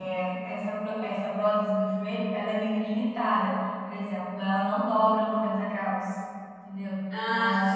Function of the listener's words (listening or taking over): listening